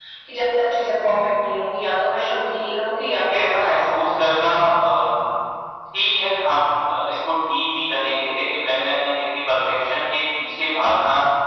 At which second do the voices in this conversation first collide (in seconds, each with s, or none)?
3.1 s